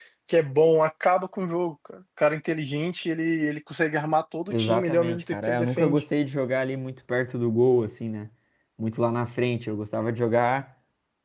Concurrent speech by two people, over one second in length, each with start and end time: 4.5-6.0

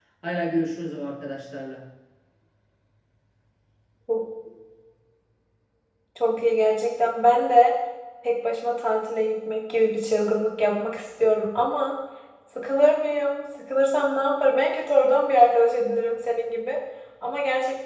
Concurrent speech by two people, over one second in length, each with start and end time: none

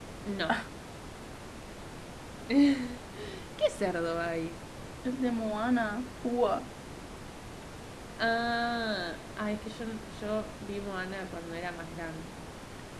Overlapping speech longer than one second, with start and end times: none

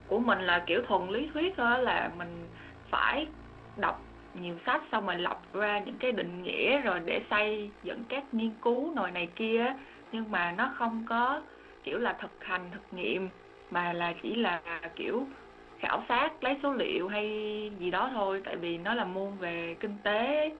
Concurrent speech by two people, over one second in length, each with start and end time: none

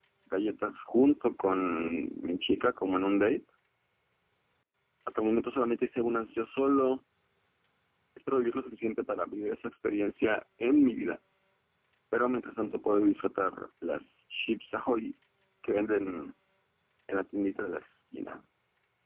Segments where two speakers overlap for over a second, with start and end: none

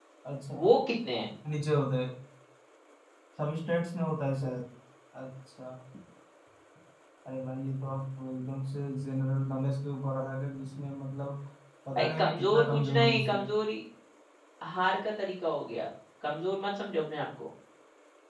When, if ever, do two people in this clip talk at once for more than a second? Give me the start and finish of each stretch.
11.9-13.5

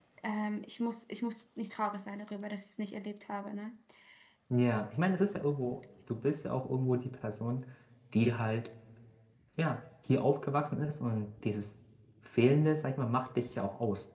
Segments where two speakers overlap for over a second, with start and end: none

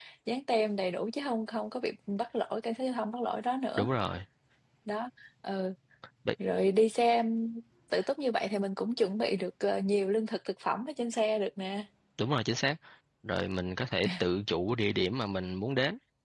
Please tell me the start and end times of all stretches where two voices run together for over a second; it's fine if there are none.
none

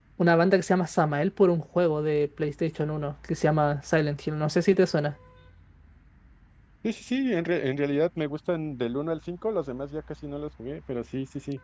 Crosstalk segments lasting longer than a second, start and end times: none

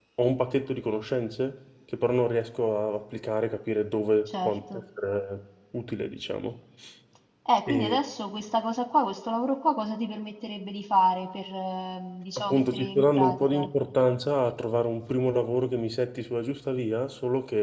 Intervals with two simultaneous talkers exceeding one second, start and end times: 12.4-13.7

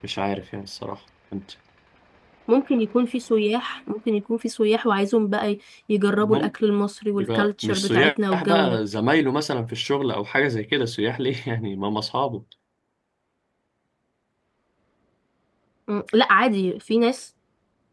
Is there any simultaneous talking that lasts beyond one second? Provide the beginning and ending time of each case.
7.2-8.8

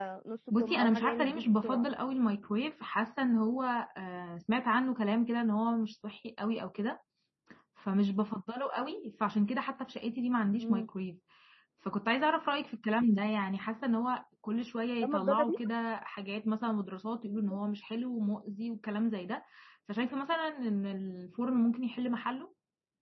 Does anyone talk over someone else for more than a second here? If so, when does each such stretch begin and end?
0.6-1.9

